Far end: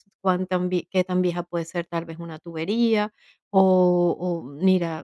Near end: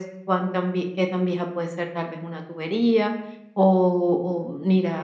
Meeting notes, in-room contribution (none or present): none